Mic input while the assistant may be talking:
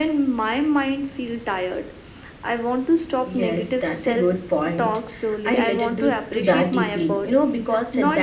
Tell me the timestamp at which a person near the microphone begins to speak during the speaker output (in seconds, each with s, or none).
3.3 s